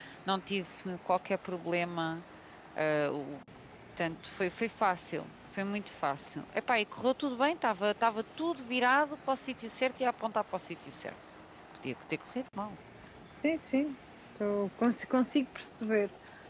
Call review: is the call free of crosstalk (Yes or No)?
Yes